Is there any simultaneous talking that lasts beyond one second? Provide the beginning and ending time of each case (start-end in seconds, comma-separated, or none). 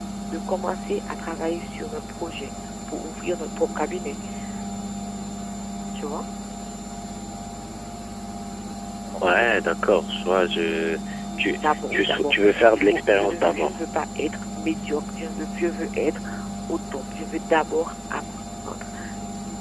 11.6-13.8